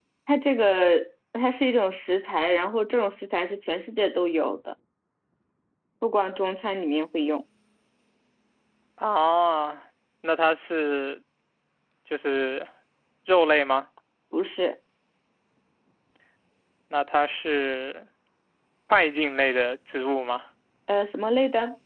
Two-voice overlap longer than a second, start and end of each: none

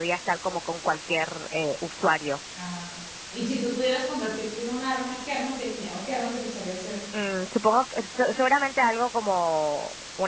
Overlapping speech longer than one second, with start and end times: none

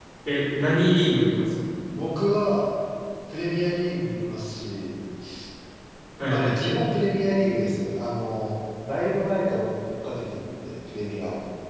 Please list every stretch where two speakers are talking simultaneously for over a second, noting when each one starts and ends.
none

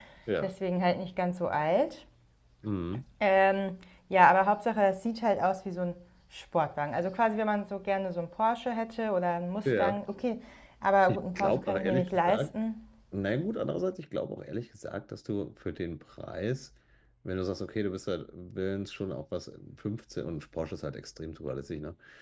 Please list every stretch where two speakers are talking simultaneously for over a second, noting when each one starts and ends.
11.1-12.5

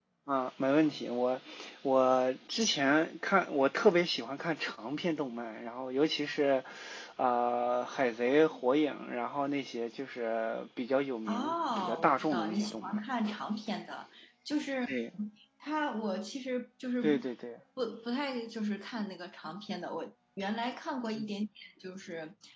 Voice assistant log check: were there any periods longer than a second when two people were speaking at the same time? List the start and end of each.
11.3-13.0

